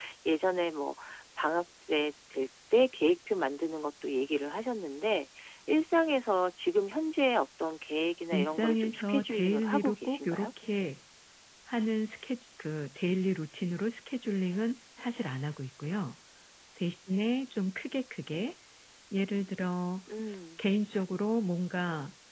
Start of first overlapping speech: 8 s

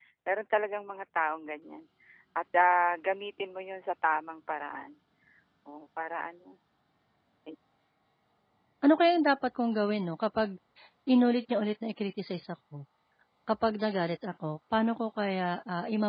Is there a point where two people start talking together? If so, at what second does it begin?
none

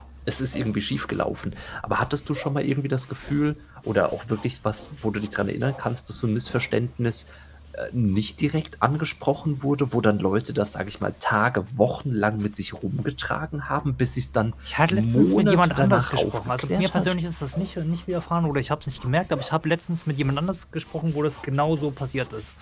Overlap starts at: 15 s

